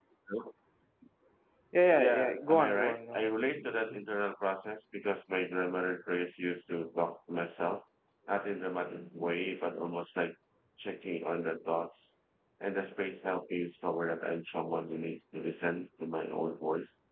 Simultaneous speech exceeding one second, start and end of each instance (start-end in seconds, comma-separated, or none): 2.0-3.3